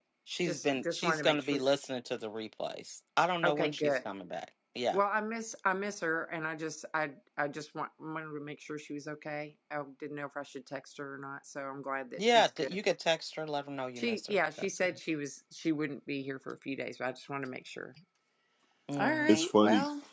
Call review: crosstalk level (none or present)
present